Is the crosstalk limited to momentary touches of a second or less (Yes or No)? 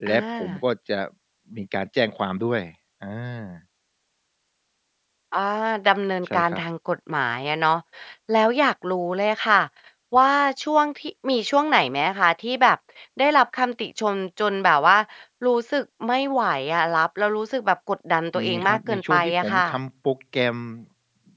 No